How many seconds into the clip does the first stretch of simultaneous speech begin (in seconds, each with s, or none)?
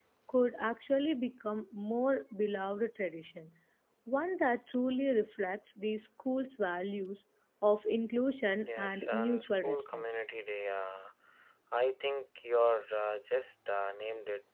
8.6 s